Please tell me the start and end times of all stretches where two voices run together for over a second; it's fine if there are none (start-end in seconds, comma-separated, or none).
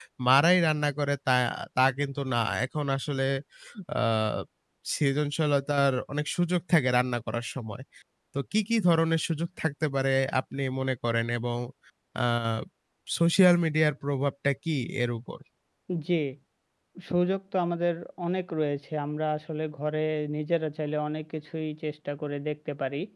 none